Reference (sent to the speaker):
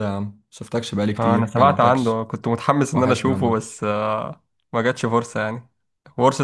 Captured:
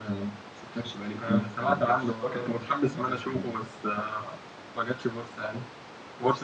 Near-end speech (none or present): present